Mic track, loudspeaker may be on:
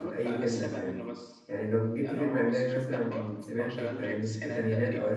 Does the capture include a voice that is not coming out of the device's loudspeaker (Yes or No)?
Yes